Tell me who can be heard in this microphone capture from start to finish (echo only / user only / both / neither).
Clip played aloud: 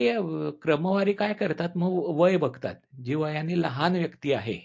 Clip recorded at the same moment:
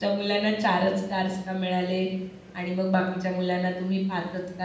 user only